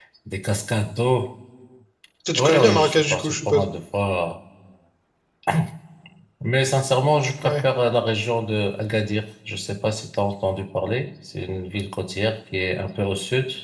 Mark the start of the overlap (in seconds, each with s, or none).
2.4 s